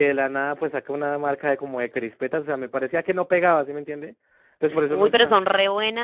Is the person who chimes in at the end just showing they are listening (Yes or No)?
No